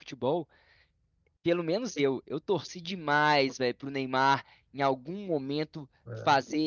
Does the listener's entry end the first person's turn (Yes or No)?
No